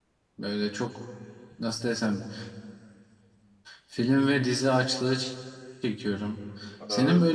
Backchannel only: Yes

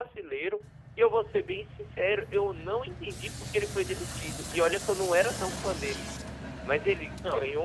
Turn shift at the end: No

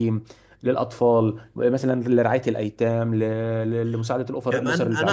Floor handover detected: Yes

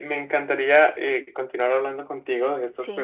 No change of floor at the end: Yes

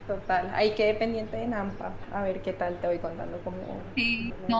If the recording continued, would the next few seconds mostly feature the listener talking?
Yes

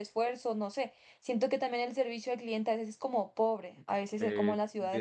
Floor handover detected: Yes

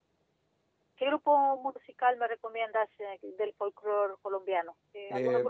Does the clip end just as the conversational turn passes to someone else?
Yes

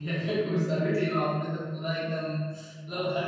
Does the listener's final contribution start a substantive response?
No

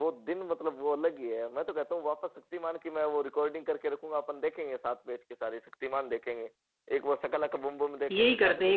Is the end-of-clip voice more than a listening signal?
Yes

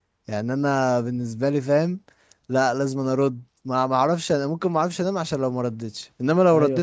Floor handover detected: Yes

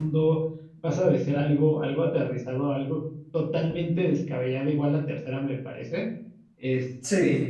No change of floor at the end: Yes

